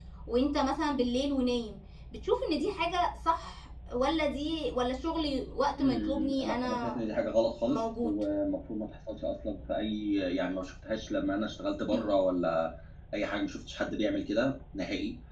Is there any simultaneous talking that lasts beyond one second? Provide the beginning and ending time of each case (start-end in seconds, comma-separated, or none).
5.8-7.0